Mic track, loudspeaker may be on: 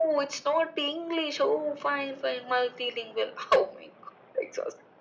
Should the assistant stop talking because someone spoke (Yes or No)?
No